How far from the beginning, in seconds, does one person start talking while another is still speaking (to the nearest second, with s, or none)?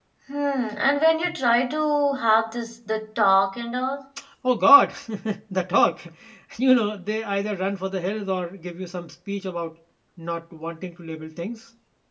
none